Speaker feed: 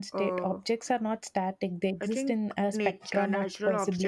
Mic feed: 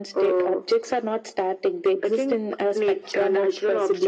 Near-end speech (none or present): none